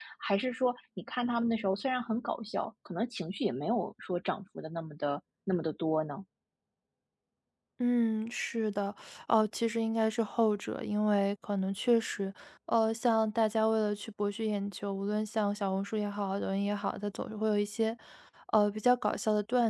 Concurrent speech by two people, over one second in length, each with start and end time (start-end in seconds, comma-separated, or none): none